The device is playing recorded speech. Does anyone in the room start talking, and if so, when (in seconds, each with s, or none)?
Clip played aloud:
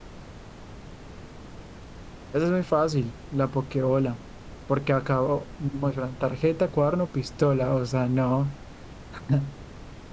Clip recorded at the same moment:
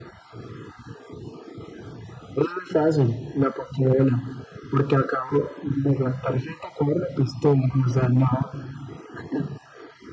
none